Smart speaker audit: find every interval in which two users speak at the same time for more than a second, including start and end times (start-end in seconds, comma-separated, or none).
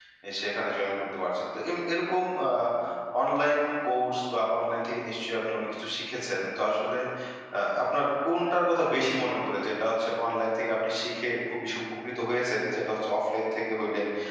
none